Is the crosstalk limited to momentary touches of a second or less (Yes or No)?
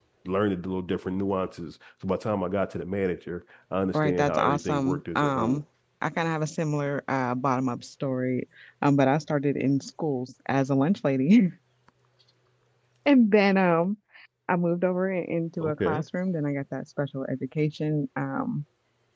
No